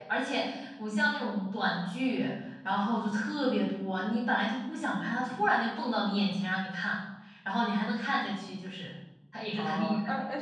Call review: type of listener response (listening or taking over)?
taking over